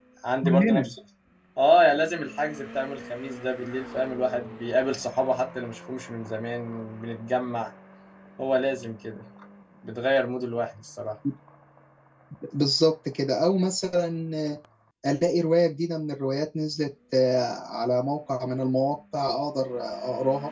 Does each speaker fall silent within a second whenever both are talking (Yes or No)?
Yes